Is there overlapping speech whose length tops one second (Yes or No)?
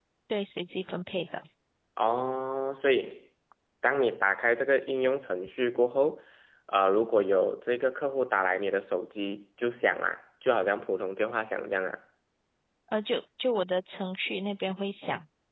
No